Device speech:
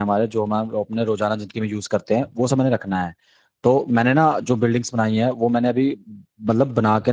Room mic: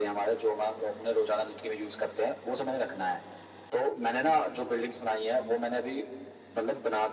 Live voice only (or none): none